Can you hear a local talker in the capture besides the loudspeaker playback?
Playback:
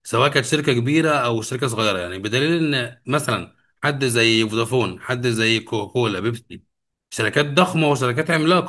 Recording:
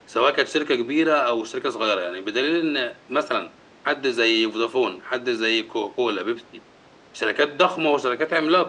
No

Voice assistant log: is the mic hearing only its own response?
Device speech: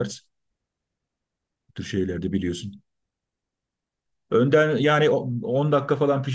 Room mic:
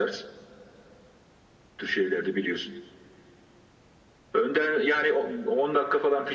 Yes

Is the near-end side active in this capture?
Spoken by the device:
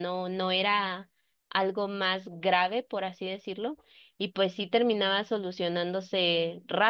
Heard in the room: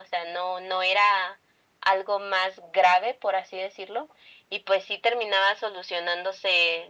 No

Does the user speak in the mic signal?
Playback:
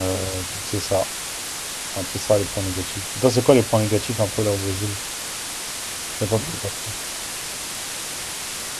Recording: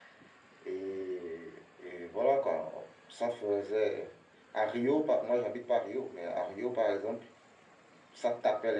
Yes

